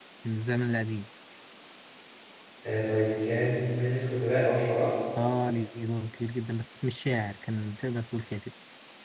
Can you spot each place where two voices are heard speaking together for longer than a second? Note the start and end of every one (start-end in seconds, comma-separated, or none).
none